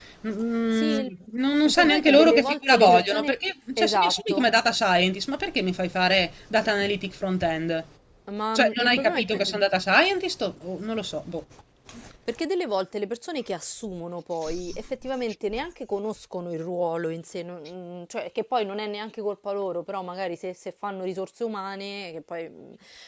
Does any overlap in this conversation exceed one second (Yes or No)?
Yes